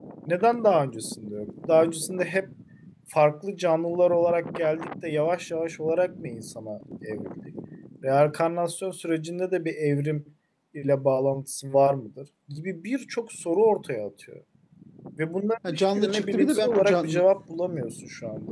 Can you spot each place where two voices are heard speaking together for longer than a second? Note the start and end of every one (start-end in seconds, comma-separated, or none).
15.7-17.2